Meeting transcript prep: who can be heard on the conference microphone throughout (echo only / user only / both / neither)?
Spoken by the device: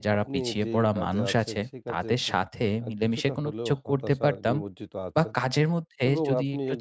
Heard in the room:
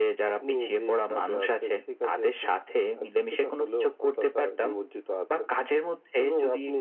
echo only